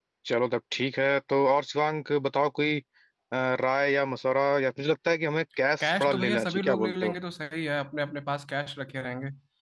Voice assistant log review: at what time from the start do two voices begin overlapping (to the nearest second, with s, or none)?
6 s